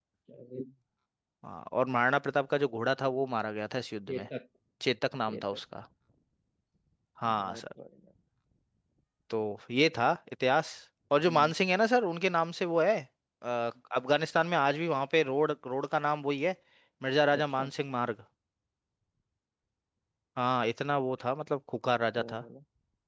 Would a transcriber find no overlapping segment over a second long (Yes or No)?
Yes